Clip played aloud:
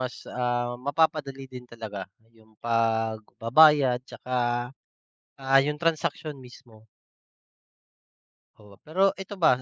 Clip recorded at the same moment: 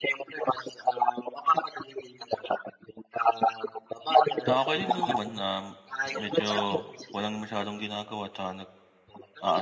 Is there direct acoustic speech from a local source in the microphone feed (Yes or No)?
Yes